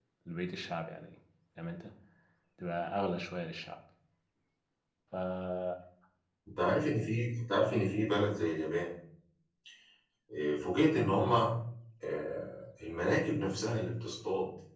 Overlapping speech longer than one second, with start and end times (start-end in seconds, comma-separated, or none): none